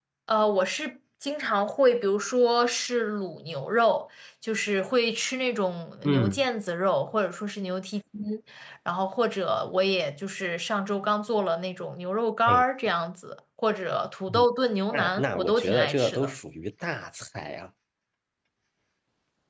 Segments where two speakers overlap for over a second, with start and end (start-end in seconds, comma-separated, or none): 14.9-16.3